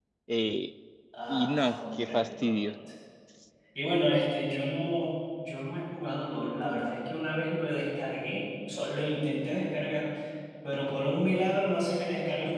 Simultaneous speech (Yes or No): Yes